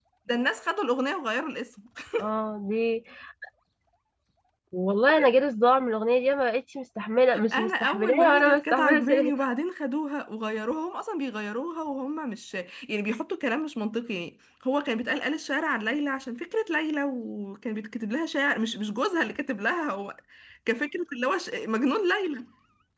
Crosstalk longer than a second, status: present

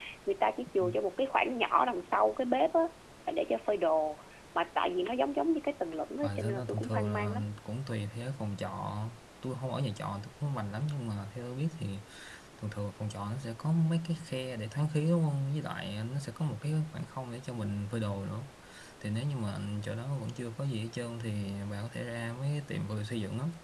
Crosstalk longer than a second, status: present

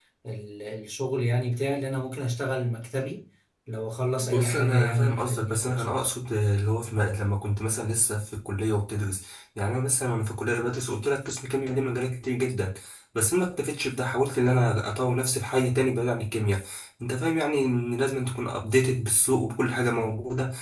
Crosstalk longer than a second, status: present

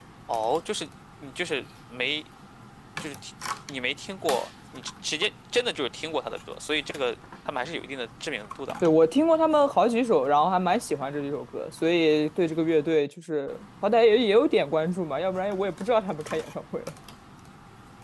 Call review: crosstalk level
none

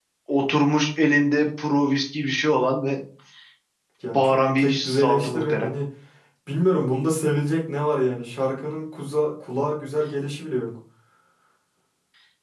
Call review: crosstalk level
present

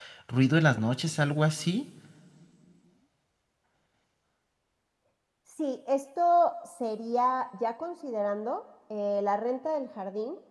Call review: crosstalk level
none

